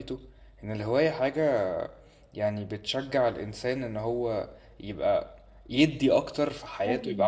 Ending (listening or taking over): listening